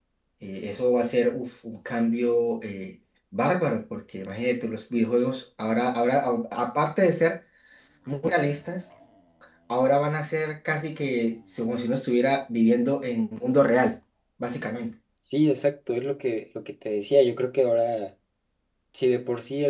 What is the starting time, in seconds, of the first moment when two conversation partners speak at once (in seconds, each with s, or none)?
none